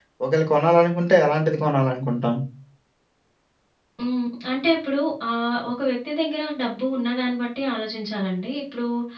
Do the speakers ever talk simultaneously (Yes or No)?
No